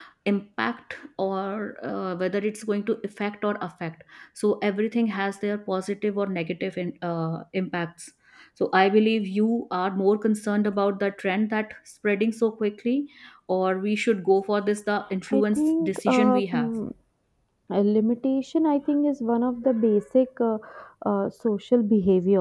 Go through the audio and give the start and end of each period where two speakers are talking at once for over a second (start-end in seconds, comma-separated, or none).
15.4-16.7